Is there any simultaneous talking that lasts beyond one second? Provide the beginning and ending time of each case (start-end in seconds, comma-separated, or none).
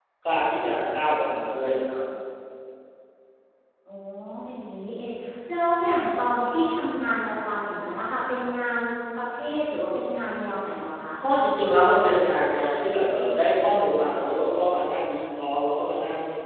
none